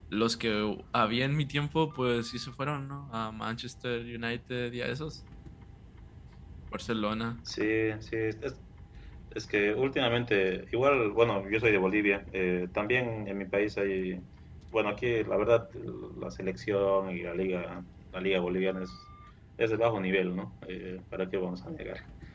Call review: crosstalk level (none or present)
none